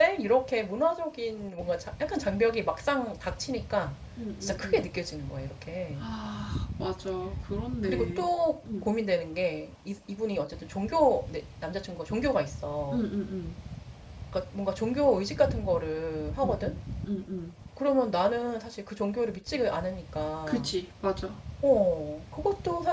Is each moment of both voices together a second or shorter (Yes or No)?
Yes